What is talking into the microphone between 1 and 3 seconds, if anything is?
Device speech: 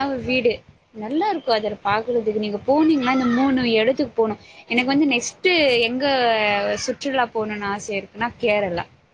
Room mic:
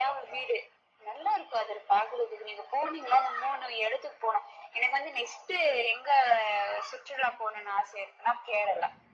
echo only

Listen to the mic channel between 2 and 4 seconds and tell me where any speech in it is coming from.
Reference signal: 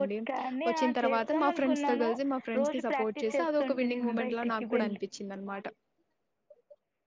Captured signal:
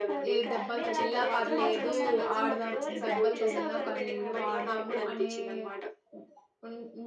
both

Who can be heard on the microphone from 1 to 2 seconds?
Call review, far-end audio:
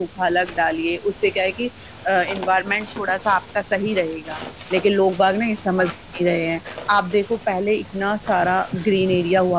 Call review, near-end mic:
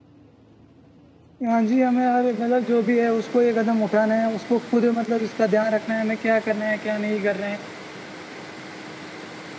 user only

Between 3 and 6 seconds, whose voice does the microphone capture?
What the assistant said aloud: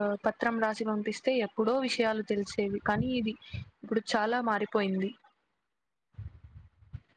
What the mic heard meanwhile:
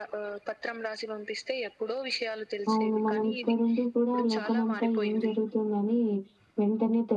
both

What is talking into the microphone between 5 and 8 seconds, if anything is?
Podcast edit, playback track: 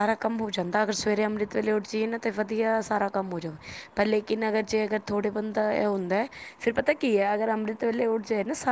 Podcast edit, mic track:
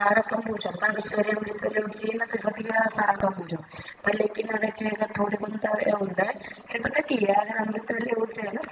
echo only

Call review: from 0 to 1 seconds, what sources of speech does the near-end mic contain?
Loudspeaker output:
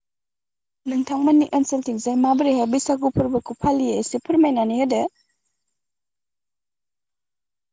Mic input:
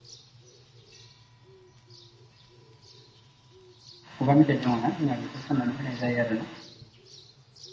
neither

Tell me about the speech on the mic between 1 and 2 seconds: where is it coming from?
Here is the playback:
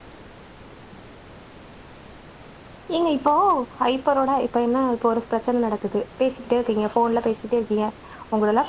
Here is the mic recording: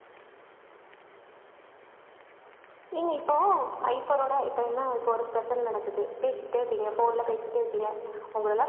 neither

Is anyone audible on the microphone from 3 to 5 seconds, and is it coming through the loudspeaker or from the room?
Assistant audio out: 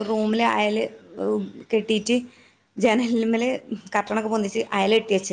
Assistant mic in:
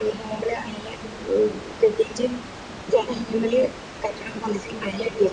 echo only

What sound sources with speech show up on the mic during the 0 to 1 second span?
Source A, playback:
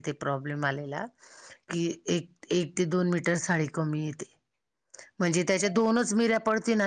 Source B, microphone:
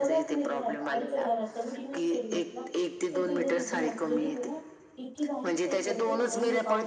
both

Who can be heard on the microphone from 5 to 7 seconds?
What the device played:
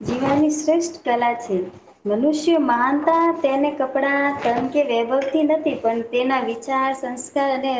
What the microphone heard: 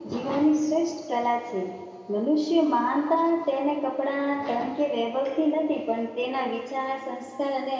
echo only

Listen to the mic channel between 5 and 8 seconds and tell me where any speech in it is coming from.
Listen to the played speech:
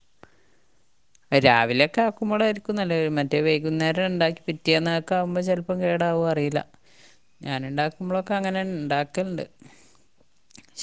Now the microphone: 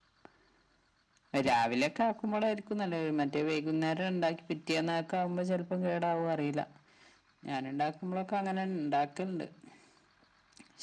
echo only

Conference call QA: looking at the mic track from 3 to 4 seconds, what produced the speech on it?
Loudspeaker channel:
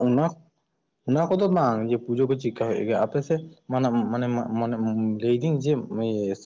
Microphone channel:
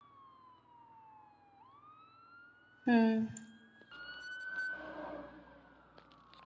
user only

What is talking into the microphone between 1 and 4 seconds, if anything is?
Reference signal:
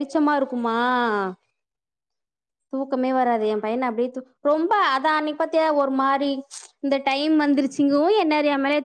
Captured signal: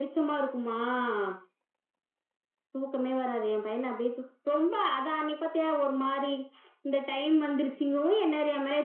echo only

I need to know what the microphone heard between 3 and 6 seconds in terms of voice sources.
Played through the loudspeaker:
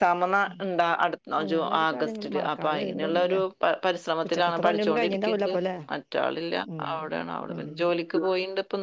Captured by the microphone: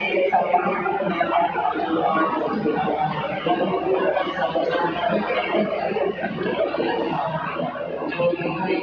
echo only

